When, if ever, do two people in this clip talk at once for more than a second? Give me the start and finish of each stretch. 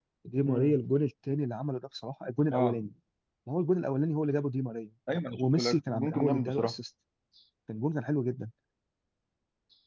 5.1-6.7

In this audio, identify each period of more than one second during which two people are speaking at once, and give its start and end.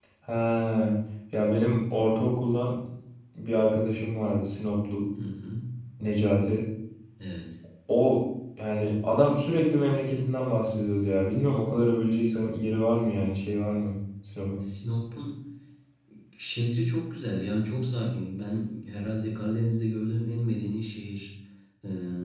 none

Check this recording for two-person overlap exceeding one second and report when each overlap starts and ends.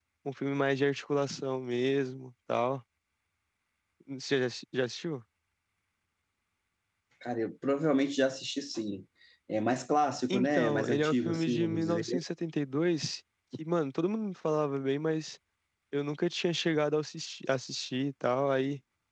10.3-12.2

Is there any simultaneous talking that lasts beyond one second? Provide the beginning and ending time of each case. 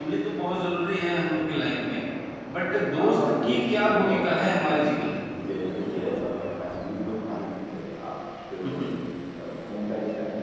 3.0-4.8

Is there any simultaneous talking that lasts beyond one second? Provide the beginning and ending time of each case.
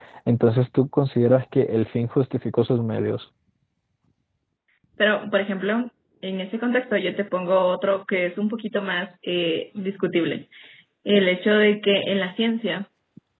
none

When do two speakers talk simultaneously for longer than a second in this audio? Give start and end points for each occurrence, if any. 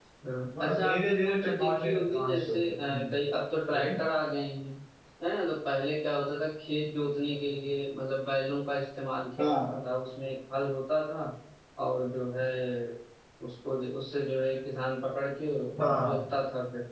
0.6-3.0

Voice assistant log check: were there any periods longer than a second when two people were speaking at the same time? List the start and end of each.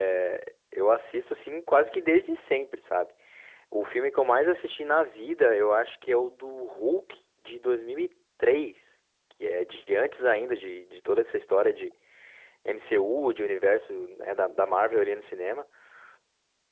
none

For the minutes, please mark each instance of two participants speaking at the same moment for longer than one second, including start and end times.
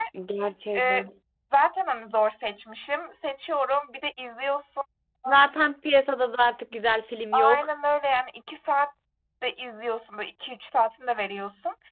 none

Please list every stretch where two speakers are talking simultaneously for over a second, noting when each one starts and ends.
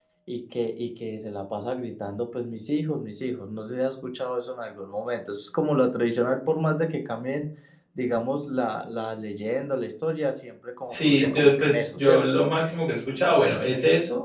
10.9-12.5

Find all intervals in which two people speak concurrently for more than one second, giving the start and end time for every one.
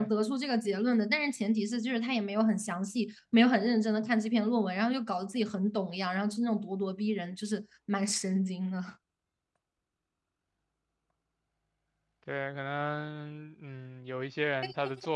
none

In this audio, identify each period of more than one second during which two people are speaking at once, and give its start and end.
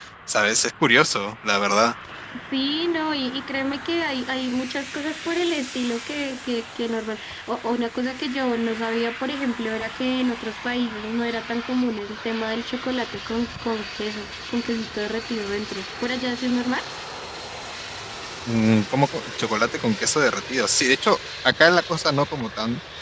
none

